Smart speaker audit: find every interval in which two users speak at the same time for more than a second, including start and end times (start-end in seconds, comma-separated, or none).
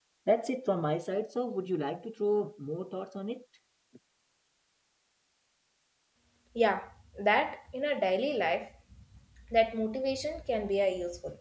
none